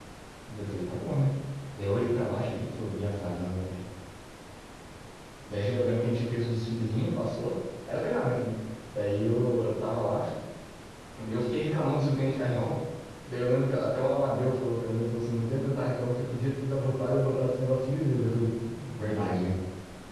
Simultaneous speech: No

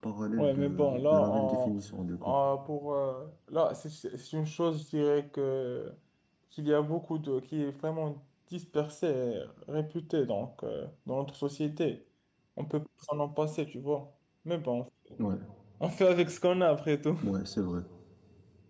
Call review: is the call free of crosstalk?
No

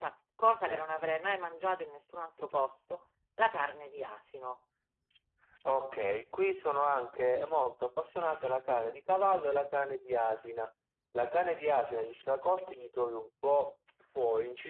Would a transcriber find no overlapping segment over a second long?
Yes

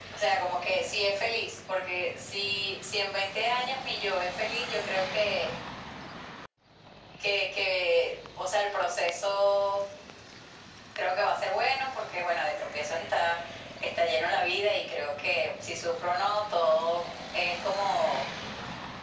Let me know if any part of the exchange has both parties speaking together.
No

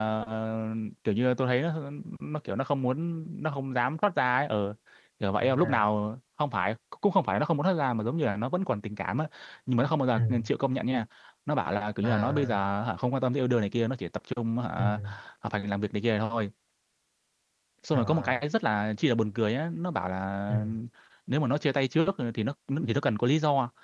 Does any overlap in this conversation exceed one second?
No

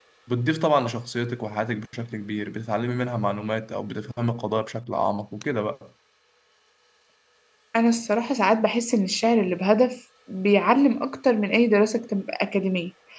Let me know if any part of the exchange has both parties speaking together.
No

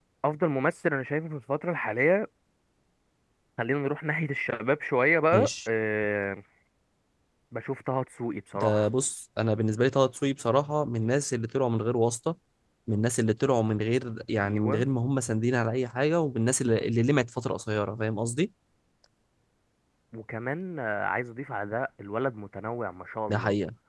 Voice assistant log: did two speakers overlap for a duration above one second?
No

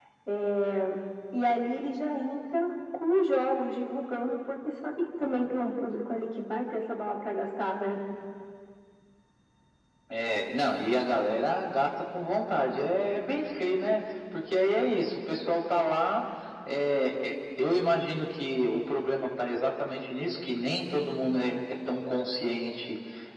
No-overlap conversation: Yes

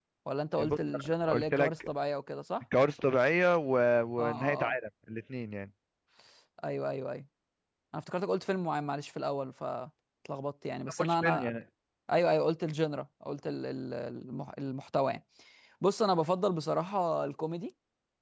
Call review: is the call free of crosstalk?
No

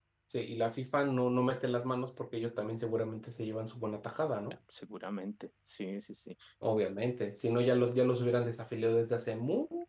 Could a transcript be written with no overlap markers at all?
Yes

